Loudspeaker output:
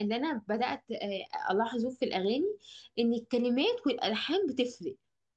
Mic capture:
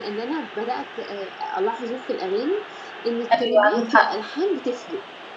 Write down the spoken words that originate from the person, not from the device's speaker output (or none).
أيوة عندك حق